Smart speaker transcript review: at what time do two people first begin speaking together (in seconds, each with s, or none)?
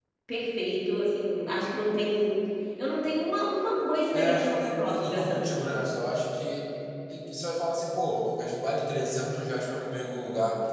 4.1 s